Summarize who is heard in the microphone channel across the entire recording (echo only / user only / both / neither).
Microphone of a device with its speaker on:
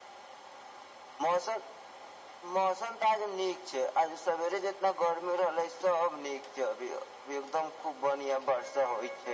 echo only